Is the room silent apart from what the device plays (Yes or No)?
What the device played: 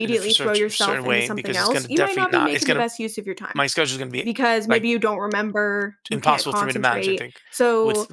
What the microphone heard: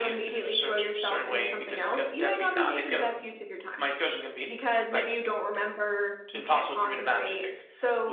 Yes